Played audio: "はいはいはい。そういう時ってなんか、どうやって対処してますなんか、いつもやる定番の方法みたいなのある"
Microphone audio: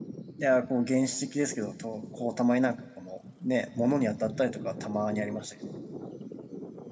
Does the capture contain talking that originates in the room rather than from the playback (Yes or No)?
Yes